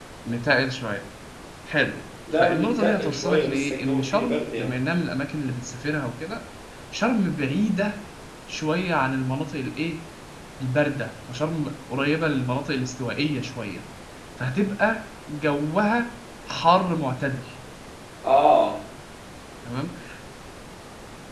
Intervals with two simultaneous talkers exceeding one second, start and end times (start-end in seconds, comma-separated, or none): 2.3-4.7